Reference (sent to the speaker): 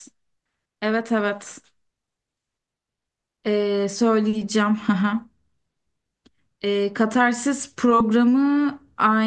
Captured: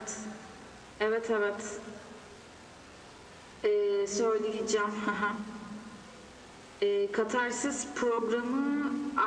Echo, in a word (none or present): present